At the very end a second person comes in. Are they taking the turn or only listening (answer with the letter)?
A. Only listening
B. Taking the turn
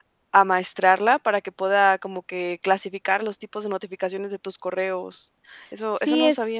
B